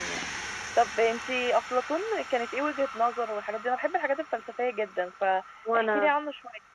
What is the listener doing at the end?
listening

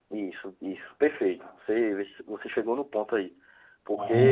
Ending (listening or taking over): listening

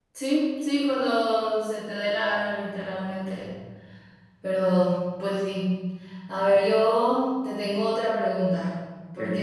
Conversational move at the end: listening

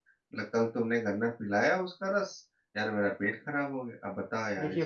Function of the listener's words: taking over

